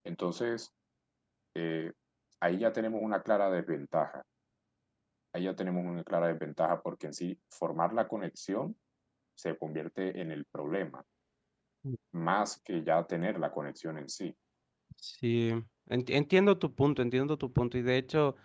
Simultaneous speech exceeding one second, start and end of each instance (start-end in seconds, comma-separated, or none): none